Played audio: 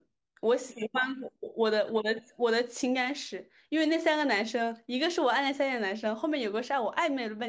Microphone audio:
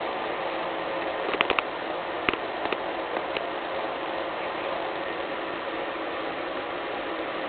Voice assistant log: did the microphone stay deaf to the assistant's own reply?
Yes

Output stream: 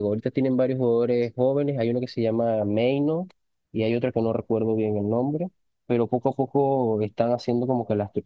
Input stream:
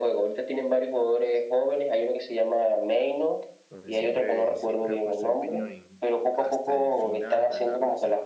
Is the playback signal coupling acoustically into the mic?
Yes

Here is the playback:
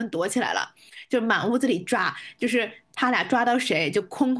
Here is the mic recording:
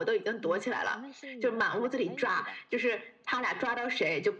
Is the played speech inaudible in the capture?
No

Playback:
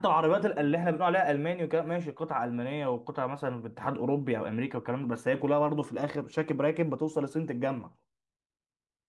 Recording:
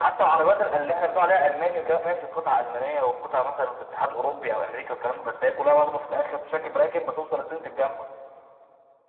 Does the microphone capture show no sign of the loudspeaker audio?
No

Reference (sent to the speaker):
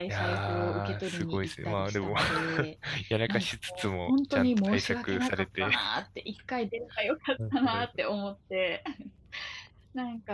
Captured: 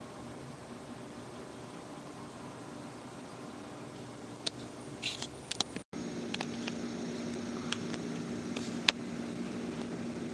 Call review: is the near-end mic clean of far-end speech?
Yes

